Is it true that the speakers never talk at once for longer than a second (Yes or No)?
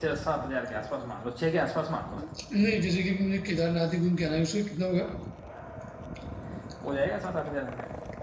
Yes